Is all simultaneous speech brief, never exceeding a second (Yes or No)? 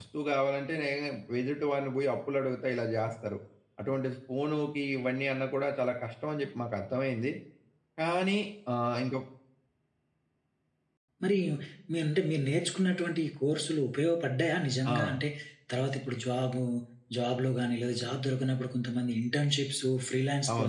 Yes